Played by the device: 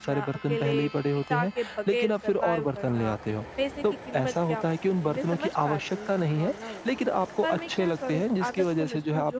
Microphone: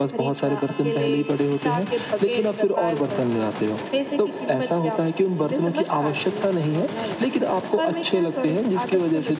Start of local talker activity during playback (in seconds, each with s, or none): none